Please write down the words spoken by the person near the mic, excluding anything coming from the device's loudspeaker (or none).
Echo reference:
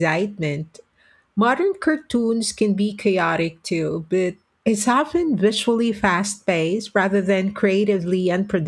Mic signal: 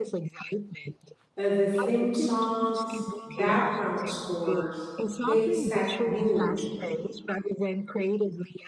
Uh, the theme songs, background scores, they set mood,